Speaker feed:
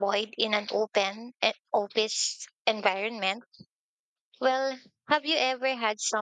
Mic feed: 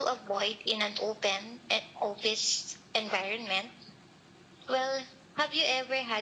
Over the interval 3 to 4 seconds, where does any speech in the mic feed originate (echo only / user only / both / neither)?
echo only